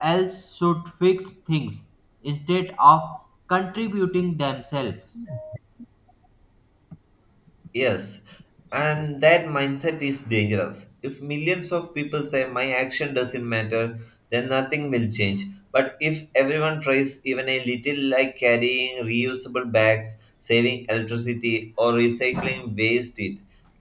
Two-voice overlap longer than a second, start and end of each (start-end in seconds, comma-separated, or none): none